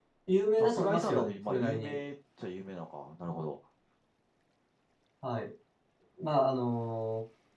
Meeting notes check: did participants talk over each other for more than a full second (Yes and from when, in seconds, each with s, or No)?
Yes, from 0.6 s